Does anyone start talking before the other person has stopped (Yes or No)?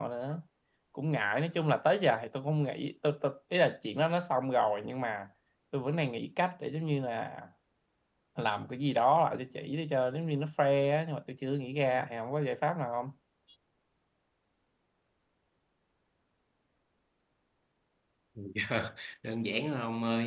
No